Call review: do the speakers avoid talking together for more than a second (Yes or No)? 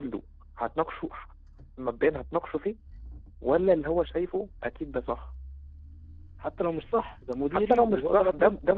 No